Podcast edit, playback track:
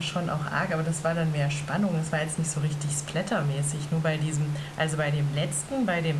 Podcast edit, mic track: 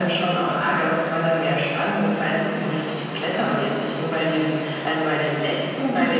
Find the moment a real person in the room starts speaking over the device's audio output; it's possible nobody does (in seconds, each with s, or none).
none